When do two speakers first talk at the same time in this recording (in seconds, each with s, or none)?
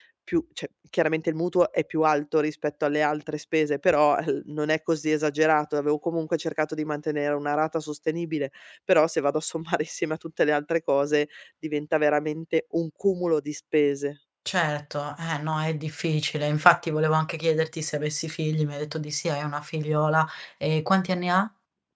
none